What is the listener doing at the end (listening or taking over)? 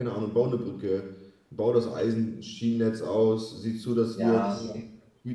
listening